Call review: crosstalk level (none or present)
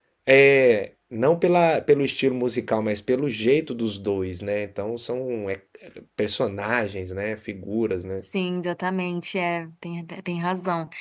none